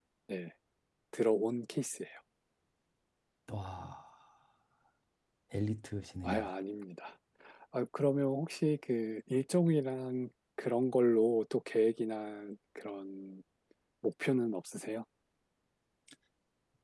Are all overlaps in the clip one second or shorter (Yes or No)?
Yes